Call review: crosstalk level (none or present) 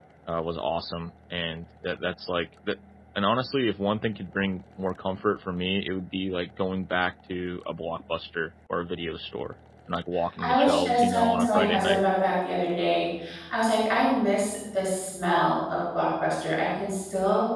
present